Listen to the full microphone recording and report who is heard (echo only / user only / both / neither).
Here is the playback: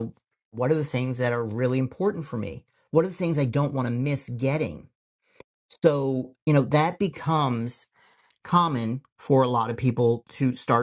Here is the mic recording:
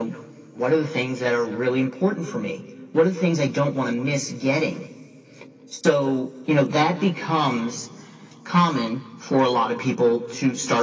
echo only